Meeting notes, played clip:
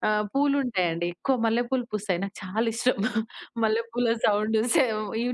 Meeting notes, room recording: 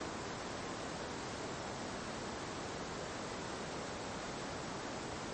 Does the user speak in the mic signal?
No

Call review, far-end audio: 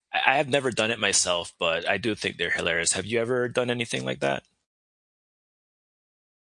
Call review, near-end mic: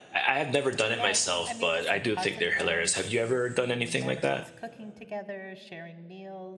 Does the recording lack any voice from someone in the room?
No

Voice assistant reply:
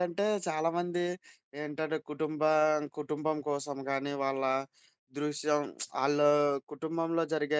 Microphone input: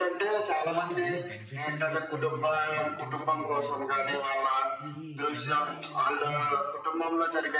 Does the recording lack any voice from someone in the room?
No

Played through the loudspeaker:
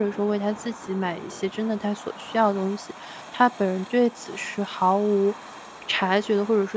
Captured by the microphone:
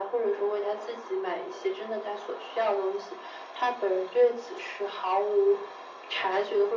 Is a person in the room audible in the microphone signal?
No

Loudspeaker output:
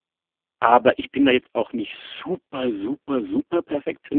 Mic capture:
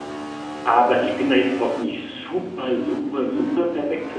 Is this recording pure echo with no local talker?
Yes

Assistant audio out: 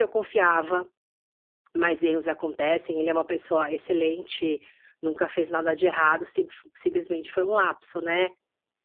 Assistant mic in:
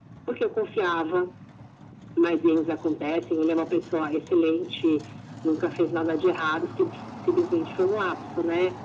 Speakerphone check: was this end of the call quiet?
Yes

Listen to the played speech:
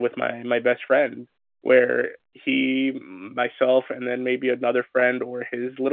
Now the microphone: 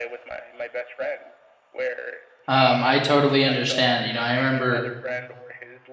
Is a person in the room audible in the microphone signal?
Yes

